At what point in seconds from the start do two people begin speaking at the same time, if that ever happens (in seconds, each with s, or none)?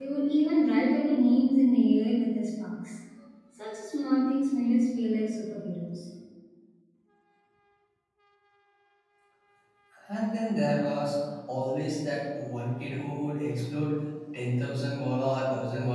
none